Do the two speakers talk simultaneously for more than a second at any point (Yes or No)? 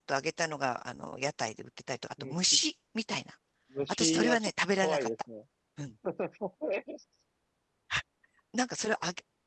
Yes